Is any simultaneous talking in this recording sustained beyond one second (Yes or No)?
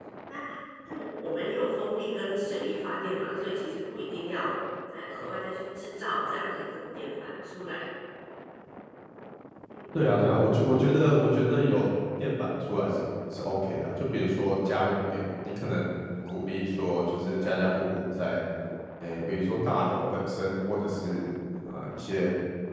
No